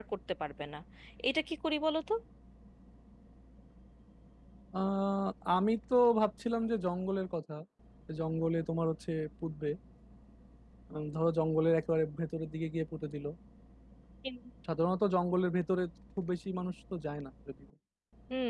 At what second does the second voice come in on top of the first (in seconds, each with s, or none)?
none